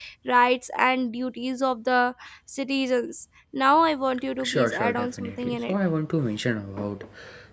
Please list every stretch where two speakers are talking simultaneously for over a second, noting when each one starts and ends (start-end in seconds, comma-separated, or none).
4.4-5.8